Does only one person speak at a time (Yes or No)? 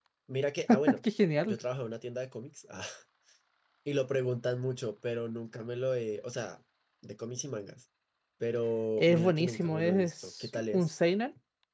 No